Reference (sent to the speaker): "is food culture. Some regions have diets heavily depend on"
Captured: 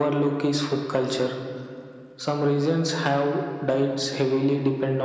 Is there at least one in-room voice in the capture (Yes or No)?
No